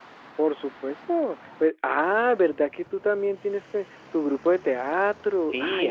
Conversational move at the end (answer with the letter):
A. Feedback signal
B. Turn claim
B